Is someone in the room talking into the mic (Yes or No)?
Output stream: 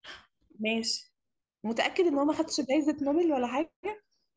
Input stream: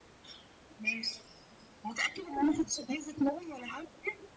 No